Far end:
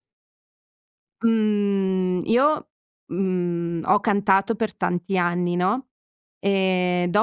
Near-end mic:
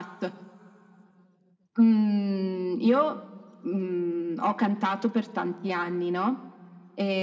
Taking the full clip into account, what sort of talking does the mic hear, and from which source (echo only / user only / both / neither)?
echo only